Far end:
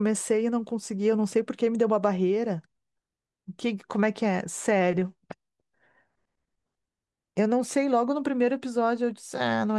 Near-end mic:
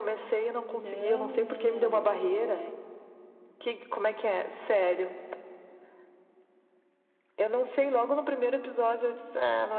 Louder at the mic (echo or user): echo